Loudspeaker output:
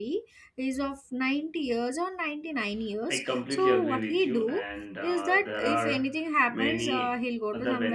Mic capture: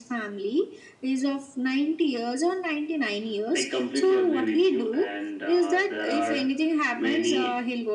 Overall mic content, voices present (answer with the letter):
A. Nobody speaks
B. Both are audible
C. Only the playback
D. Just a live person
C